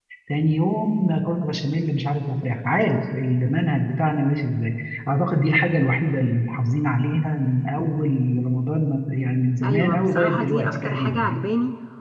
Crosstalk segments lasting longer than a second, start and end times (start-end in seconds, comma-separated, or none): 9.6-11.4